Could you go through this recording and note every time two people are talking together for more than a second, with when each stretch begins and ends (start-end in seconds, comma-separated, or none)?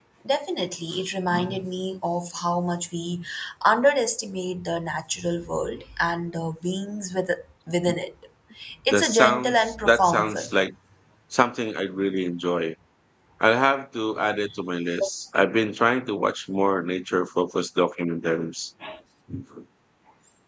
8.9-10.5